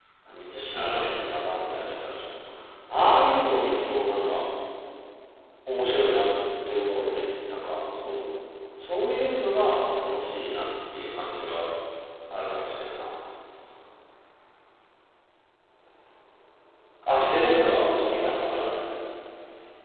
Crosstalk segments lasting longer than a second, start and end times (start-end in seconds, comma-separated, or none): 17.1-18.4